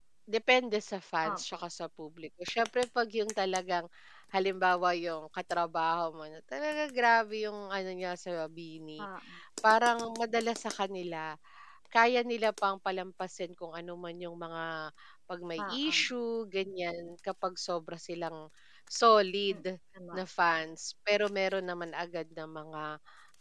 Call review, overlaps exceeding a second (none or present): none